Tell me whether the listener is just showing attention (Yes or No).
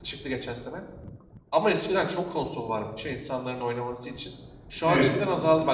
Yes